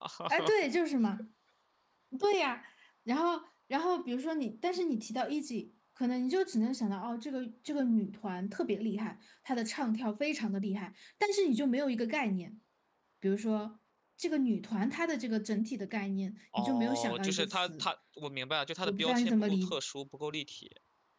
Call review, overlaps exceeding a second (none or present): present